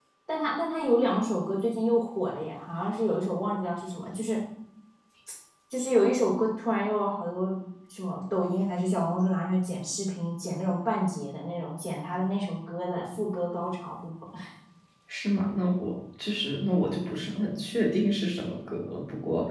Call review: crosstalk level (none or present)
none